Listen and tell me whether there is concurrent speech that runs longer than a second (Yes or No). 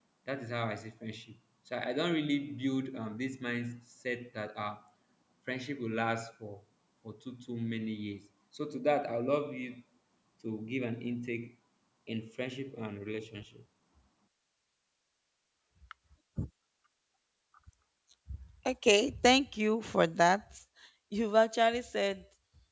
No